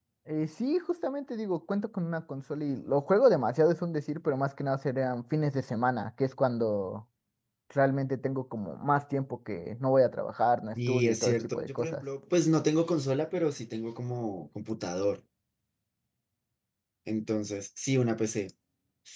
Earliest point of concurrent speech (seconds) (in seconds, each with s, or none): 10.8 s